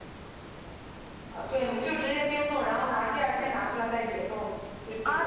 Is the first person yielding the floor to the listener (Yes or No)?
Yes